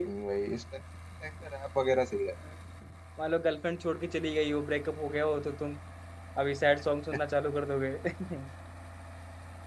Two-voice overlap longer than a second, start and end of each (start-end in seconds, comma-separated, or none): none